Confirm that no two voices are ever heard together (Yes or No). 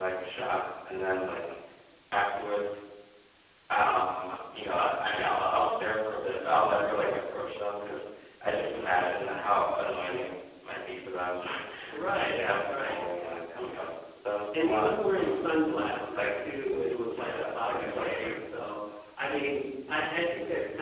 No